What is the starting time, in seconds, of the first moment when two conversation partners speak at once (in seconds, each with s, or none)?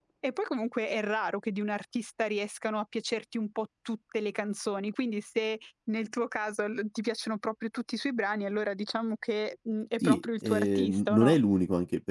10.0 s